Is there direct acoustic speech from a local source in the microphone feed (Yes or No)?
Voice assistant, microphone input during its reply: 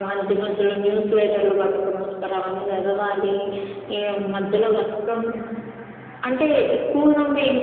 No